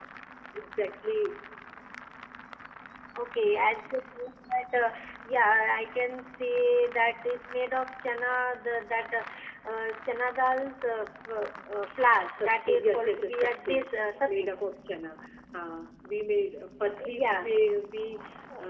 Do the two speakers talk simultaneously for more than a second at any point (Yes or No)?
Yes